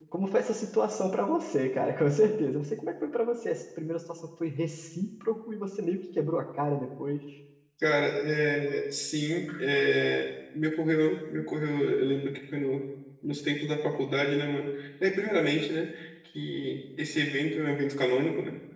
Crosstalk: none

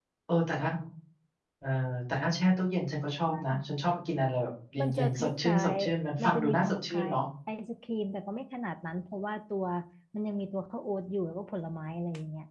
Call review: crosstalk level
present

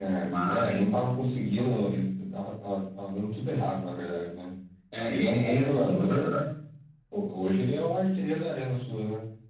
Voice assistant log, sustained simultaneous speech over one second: present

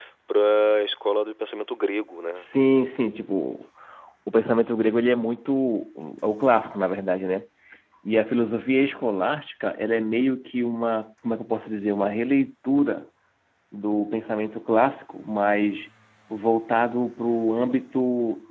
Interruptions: none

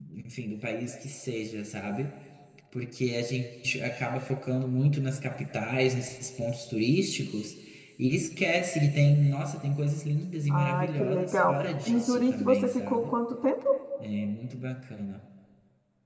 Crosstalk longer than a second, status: present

